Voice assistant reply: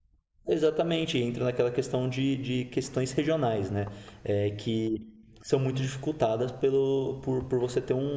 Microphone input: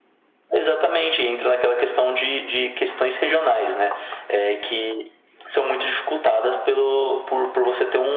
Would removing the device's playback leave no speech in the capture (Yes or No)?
Yes